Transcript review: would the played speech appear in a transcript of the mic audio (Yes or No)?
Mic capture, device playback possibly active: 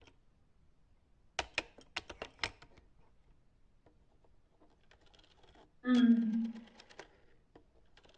No